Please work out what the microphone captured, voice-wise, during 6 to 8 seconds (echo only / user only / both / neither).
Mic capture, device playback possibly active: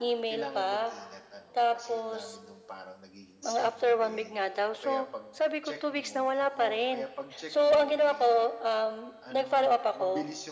both